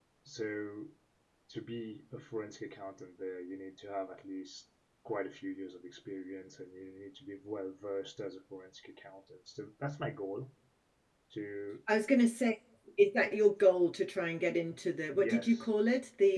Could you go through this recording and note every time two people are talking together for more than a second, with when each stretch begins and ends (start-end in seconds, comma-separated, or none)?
none